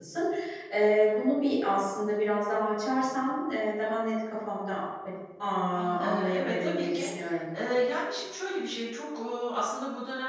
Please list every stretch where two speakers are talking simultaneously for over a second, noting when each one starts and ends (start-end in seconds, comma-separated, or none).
5.7-7.1